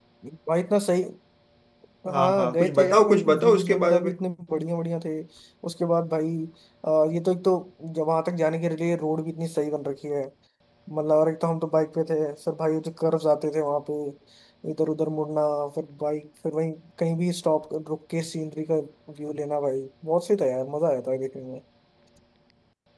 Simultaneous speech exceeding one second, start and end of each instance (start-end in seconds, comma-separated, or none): 2.1-4.1